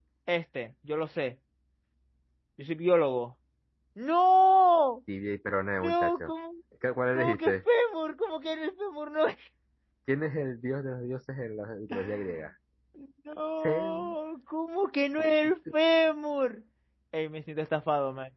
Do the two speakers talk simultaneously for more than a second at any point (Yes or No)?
No